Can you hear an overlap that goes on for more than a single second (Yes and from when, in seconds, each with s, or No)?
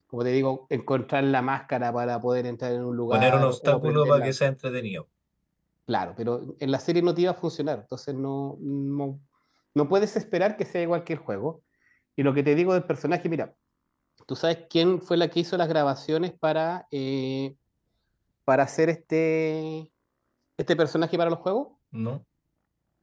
Yes, from 3.1 s